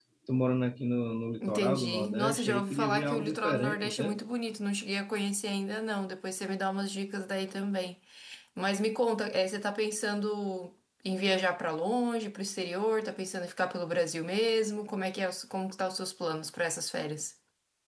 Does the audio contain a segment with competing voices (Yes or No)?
Yes